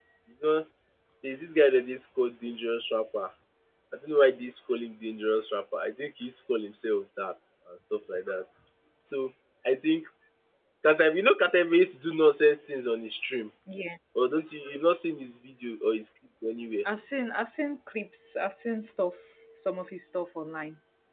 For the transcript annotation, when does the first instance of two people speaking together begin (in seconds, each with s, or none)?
none